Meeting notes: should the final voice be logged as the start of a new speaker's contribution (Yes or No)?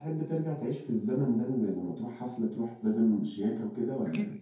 Yes